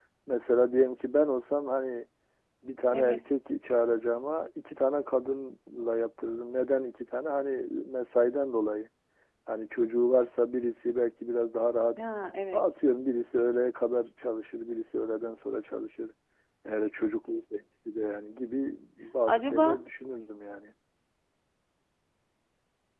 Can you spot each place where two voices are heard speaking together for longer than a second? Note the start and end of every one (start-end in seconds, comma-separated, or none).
none